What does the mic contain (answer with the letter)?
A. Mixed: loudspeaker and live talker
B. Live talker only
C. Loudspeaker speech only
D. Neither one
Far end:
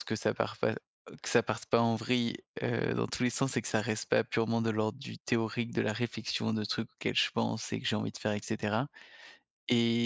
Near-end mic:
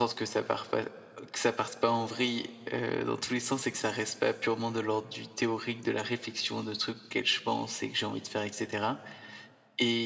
C